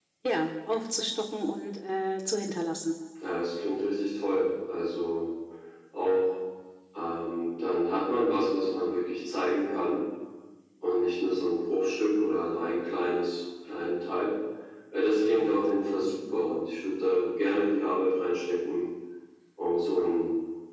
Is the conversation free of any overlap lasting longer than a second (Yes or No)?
Yes